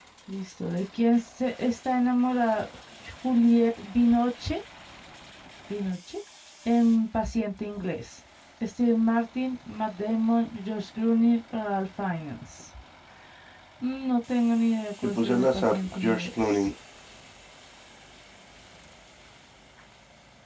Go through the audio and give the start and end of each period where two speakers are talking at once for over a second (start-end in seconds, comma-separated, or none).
15.0-16.7